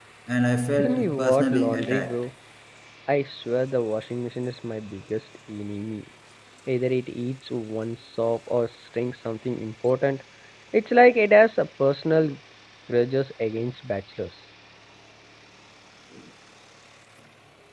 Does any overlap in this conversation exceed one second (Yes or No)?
Yes